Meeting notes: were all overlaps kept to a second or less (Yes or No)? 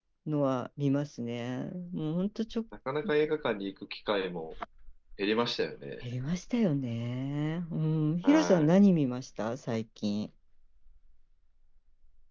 Yes